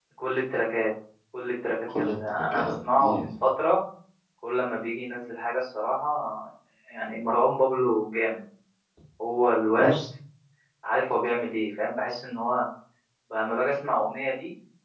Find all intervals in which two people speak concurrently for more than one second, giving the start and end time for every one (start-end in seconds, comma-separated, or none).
1.9-3.3